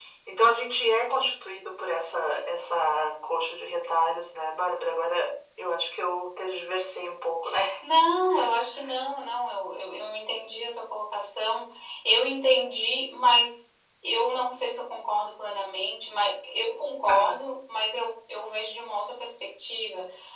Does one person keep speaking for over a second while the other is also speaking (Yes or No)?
No